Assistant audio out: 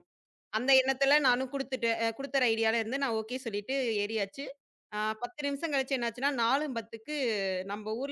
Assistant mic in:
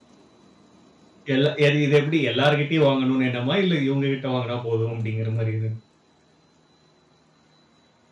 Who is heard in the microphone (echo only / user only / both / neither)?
user only